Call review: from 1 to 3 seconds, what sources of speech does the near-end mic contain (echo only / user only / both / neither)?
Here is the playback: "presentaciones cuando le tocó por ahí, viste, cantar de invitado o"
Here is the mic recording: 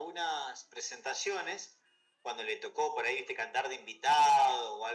echo only